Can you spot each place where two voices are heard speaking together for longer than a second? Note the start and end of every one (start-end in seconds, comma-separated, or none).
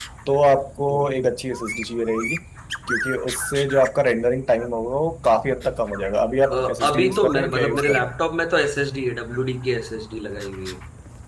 6.5-8.1